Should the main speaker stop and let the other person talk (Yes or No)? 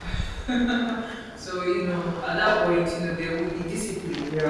Yes